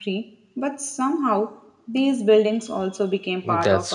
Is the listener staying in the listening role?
No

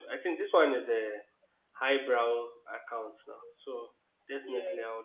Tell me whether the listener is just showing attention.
Yes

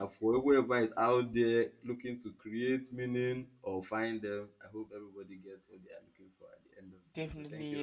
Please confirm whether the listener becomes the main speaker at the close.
Yes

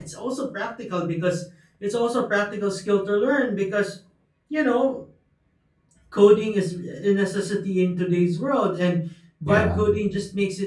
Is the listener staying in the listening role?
Yes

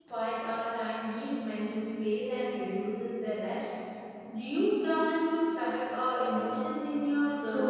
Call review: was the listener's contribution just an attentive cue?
No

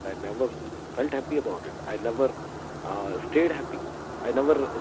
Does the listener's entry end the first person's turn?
No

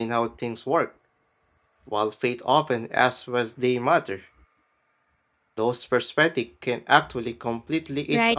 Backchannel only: No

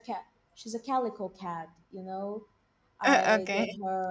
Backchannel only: Yes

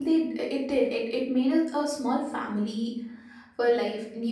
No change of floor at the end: Yes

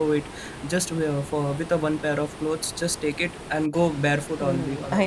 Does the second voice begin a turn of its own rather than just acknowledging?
Yes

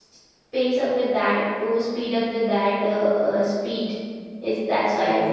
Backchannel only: Yes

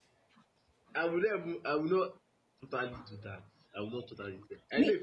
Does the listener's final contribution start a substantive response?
No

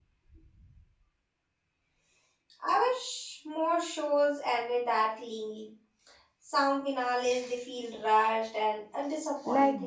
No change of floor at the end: No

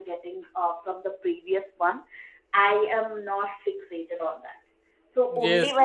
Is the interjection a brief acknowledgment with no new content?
Yes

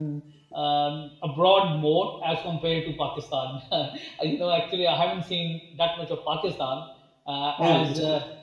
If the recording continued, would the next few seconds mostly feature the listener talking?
No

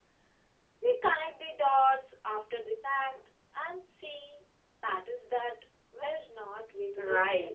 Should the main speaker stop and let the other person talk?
Yes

